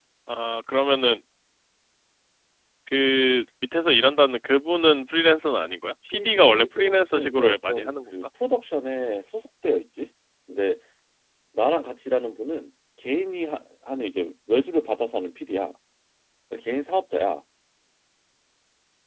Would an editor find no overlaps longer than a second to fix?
No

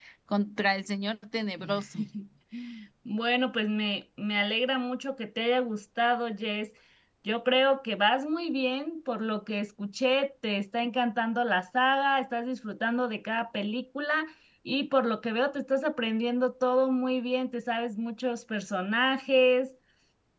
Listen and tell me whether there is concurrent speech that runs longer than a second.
No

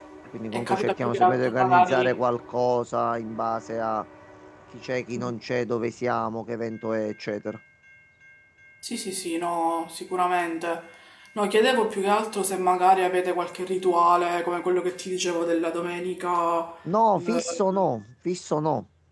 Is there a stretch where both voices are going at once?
Yes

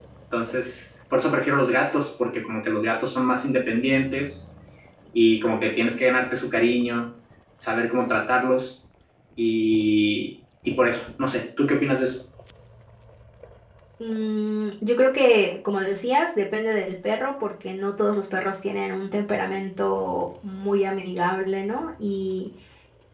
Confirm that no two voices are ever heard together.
Yes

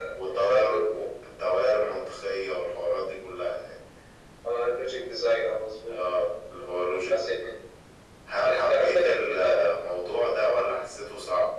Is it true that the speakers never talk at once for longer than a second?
No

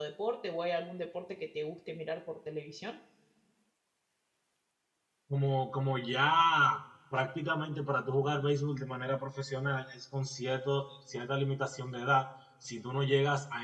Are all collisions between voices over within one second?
Yes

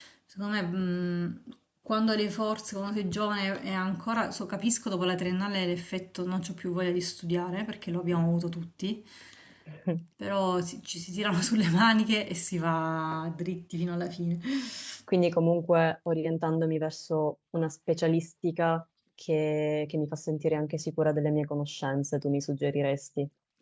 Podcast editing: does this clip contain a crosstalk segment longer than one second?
No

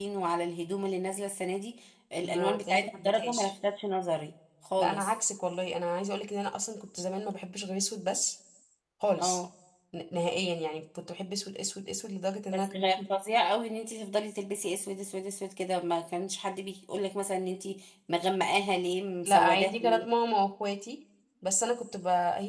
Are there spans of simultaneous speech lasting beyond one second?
Yes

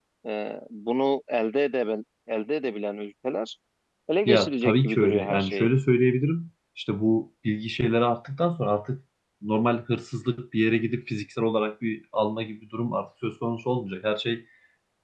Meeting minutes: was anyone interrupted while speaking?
Yes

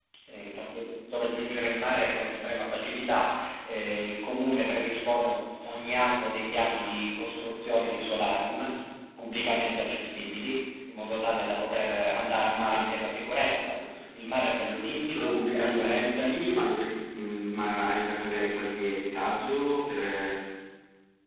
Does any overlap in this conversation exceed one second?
Yes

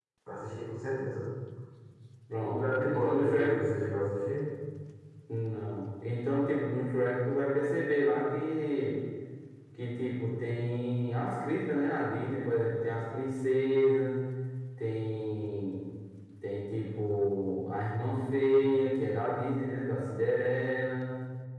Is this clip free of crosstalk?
No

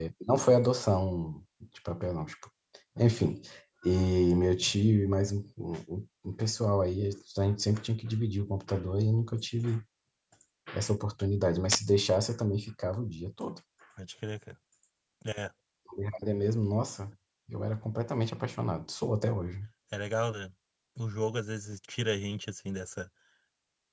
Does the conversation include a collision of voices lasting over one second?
No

